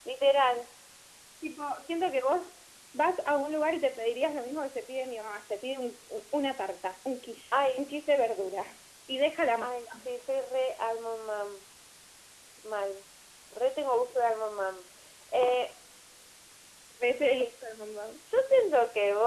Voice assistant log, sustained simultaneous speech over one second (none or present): none